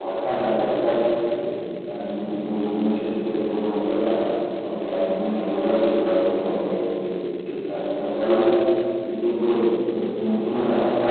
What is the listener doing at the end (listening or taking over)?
listening